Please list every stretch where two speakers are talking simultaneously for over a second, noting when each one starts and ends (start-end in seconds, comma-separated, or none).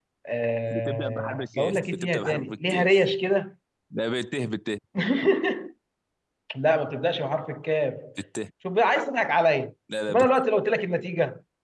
0.7-3.0